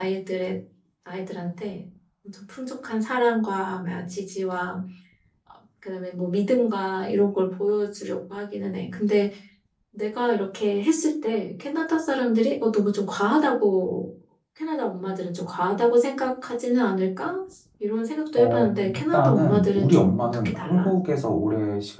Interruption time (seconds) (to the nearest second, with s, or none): 18 s